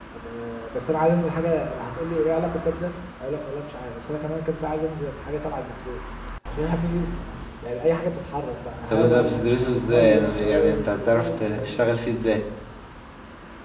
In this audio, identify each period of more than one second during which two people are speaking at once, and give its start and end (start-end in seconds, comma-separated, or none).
8.9-11.8